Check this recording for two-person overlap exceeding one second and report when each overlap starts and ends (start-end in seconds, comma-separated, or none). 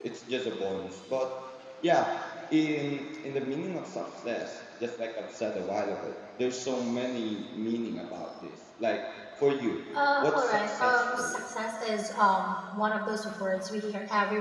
10.2-11.4